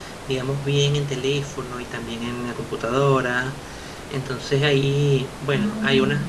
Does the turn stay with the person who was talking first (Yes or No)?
Yes